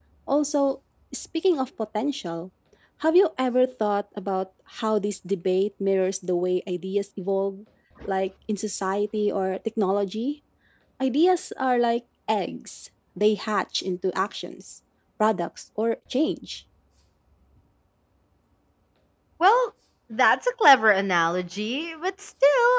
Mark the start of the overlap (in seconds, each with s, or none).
none